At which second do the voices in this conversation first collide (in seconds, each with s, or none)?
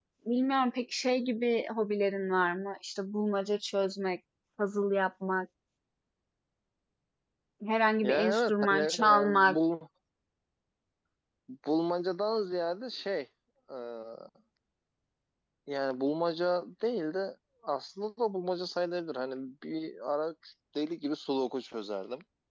8.0 s